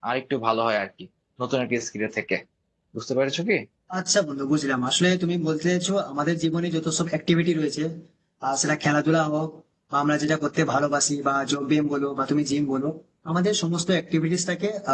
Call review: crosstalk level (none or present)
none